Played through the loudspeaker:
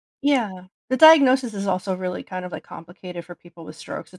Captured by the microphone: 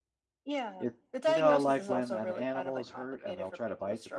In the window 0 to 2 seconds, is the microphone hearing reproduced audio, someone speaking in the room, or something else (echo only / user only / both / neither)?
both